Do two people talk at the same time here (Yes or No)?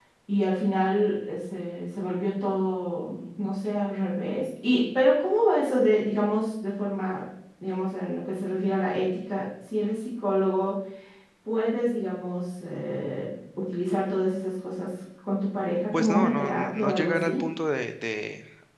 Yes